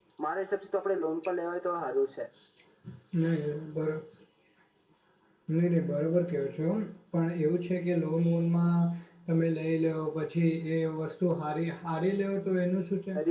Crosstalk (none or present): none